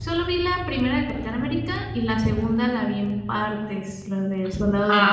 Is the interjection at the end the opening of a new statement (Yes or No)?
Yes